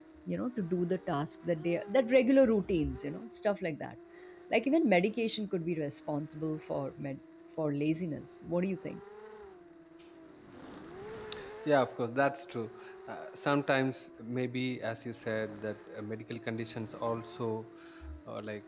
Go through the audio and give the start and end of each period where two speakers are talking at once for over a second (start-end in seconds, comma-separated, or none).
none